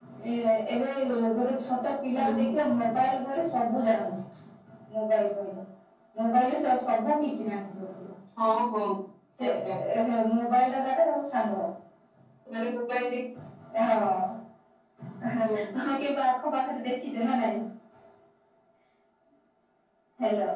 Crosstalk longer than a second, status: none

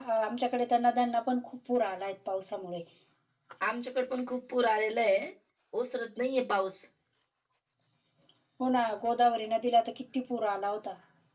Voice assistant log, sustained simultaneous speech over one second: none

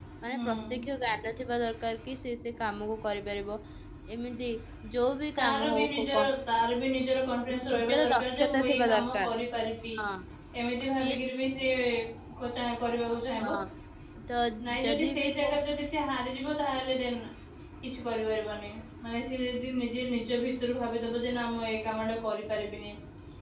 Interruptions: present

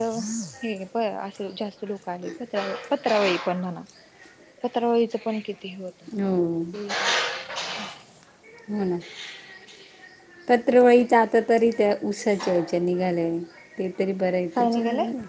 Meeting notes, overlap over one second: none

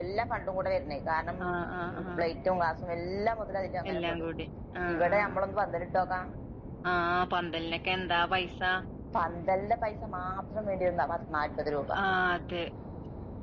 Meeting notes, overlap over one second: none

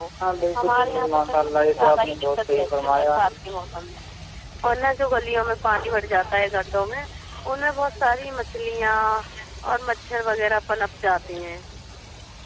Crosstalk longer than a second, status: present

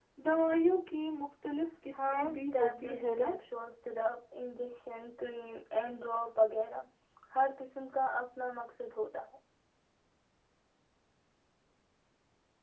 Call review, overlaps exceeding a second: present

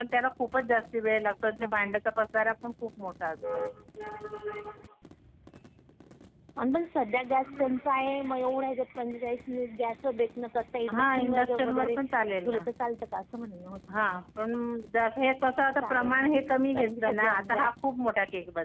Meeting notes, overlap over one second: present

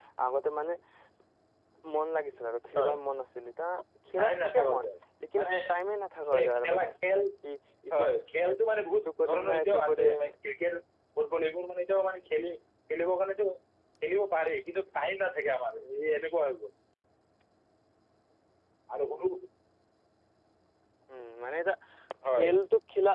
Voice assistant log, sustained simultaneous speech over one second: present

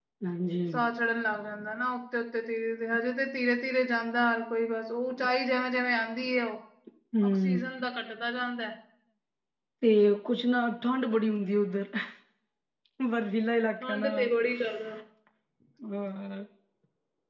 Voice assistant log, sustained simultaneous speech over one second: none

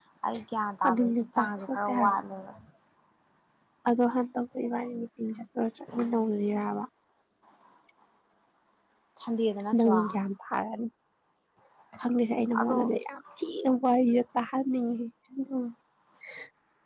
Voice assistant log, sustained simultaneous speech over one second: present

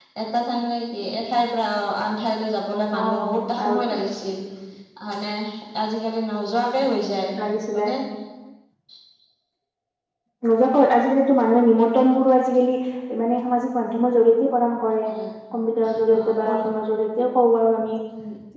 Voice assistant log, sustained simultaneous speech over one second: none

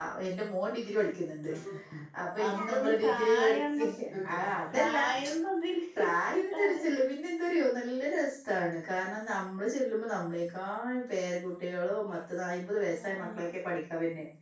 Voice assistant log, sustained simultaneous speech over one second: present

